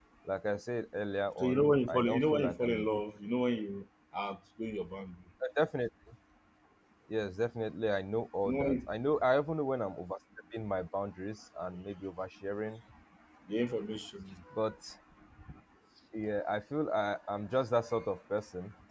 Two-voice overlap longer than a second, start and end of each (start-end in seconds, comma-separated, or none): 1.4-3.0